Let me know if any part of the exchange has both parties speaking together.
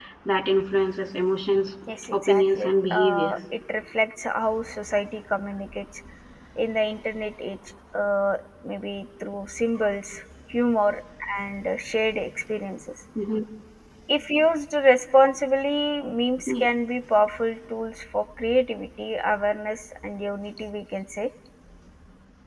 Yes, from 2.1 s

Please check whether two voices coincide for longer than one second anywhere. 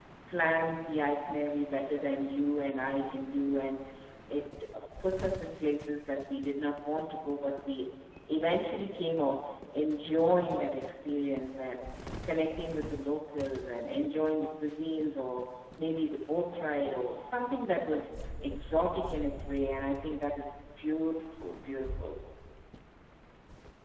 No

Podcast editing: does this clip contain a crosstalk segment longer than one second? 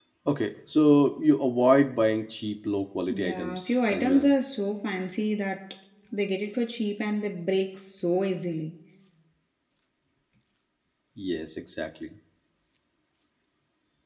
Yes, from 3.1 s

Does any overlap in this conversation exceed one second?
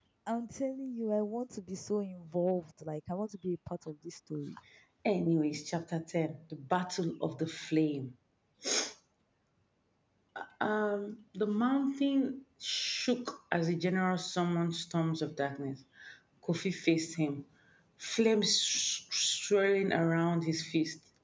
No

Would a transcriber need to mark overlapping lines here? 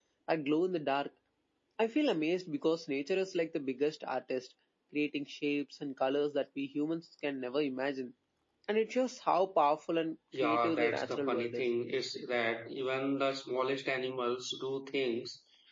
Yes, from 10.3 s

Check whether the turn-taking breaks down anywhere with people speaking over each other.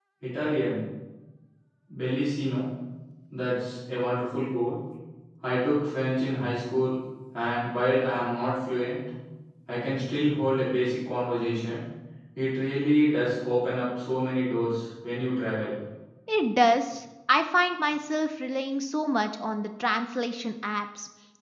No

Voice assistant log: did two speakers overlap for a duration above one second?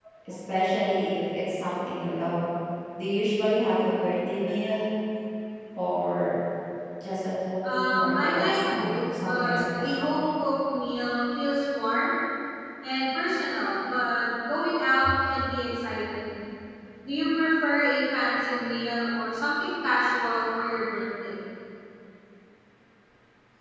Yes, from 7.6 s

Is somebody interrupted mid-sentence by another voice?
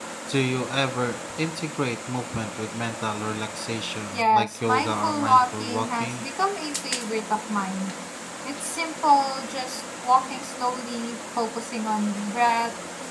Yes, from 4.1 s

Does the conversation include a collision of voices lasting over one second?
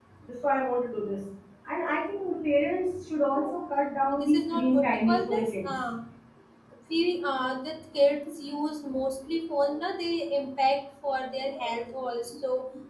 Yes, from 4.1 s

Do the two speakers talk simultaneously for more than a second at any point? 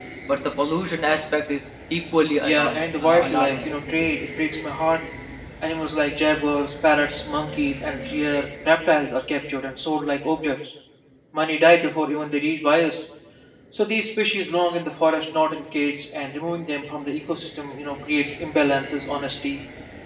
Yes, from 2.4 s

